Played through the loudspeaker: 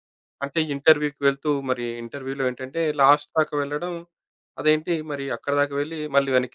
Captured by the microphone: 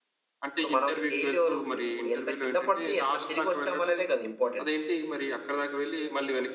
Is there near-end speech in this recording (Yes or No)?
Yes